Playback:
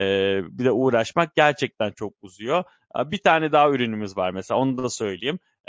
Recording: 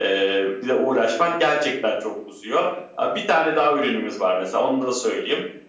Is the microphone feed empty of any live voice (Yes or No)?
Yes